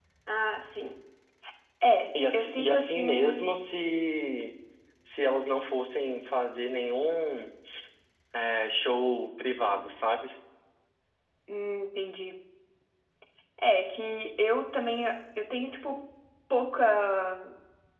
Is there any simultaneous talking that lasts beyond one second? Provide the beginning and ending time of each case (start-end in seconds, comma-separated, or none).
2.3-3.6